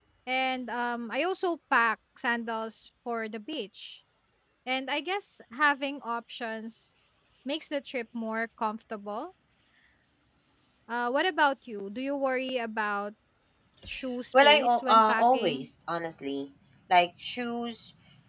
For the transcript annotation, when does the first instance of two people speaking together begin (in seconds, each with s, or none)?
14.4 s